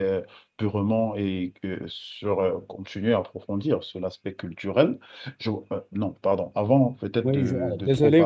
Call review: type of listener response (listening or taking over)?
taking over